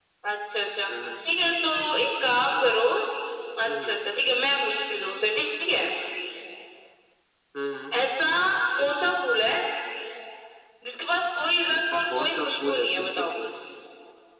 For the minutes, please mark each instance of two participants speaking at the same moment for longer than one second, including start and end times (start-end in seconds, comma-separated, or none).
11.8-13.2